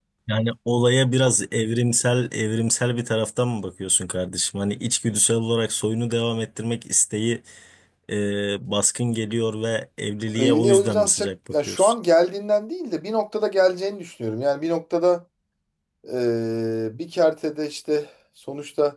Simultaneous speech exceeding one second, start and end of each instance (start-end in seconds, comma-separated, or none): 10.4-11.9